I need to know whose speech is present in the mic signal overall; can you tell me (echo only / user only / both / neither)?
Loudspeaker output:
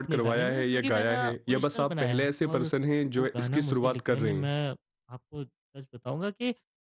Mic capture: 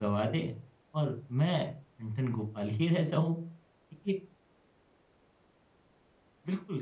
user only